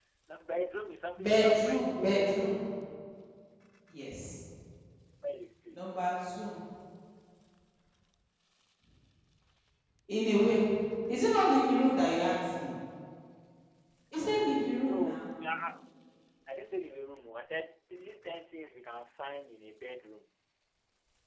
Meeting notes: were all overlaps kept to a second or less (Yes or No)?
No